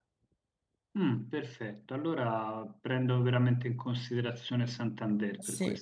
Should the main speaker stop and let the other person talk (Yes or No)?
Yes